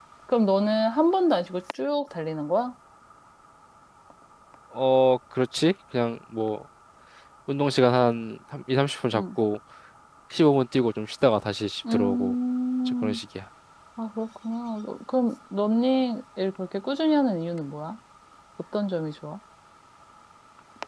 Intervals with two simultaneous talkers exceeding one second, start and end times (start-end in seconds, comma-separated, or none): none